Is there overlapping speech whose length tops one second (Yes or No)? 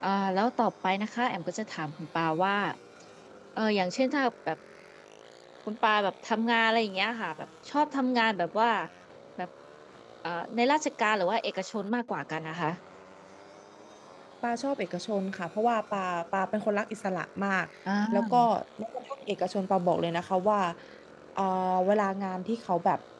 No